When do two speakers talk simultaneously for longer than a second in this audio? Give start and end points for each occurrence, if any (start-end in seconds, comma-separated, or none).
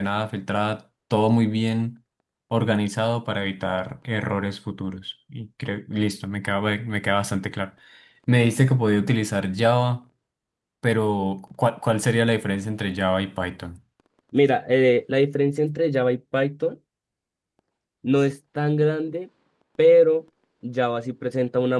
none